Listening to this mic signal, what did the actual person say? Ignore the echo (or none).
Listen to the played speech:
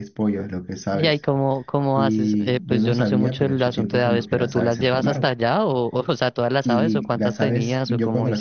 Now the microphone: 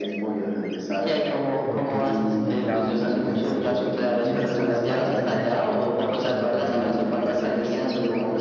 porque este es tu primer trabajo y si em, tienes una mala referencia de tu primer trabajo, no te va a ir bien después.